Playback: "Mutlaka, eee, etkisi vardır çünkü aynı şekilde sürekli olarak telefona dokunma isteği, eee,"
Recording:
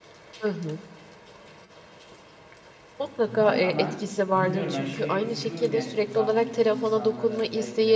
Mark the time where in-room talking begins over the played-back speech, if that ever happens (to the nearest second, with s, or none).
3 s